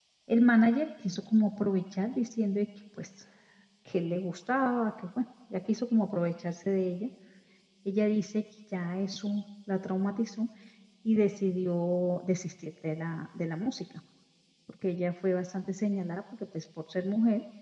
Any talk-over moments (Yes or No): No